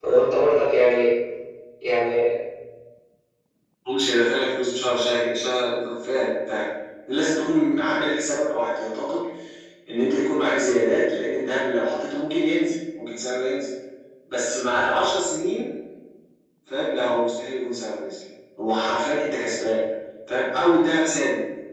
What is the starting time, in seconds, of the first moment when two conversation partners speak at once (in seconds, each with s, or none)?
none